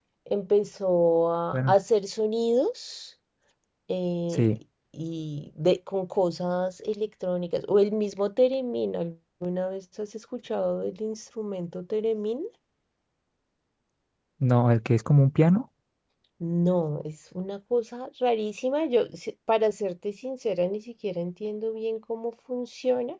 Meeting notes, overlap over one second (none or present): none